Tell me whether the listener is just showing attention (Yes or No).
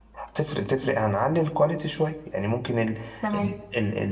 Yes